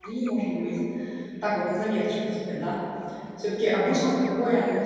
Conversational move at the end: listening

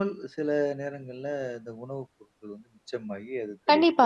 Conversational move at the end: taking over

